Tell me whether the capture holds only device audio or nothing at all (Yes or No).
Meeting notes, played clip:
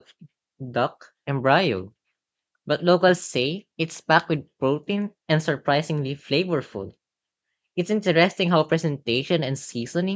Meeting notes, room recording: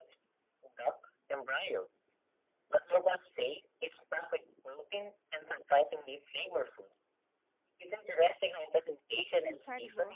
No